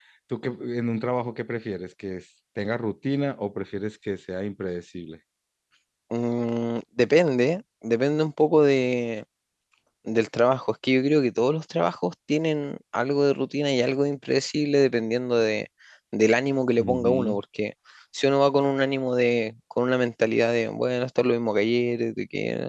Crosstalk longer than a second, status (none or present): none